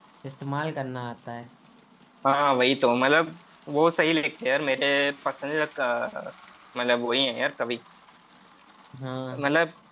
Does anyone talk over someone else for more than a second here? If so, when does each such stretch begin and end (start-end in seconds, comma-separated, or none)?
none